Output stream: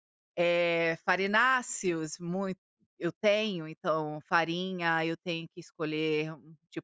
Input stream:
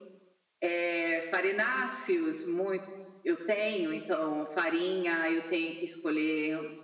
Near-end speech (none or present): none